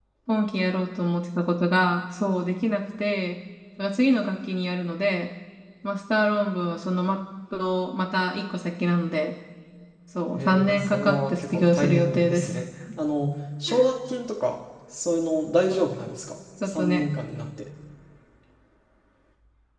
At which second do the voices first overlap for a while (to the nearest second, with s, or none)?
10 s